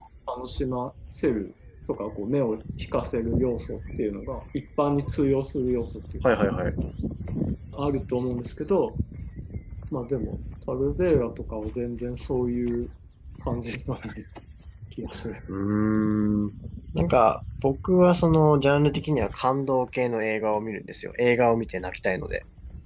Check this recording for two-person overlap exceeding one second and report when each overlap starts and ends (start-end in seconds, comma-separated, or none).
none